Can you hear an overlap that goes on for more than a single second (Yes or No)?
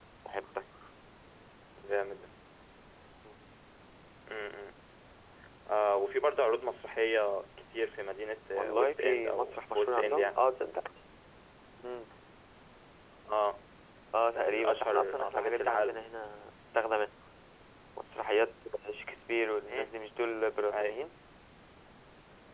Yes